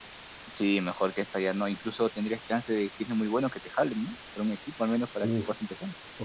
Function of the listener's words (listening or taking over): taking over